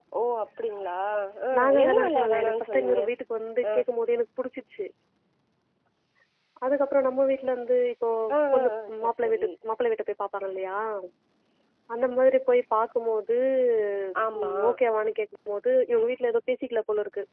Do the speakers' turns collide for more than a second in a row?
Yes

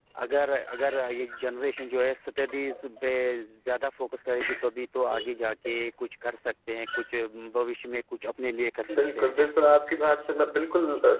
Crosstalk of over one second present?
No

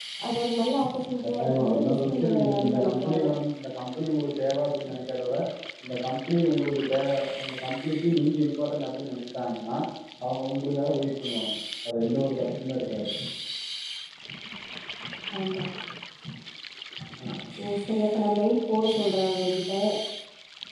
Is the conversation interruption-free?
No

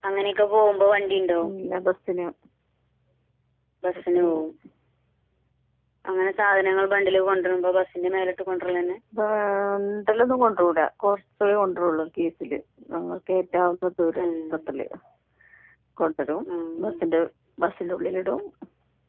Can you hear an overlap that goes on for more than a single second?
No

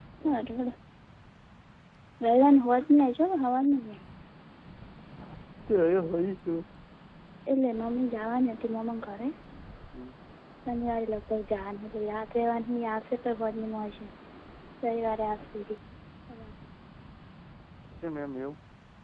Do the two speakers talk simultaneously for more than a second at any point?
No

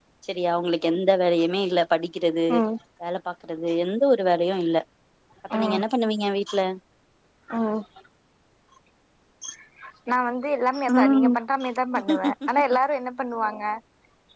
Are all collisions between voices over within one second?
Yes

